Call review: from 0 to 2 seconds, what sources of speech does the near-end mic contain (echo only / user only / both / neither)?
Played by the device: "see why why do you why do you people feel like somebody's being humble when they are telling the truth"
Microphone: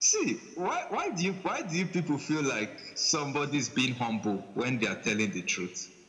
echo only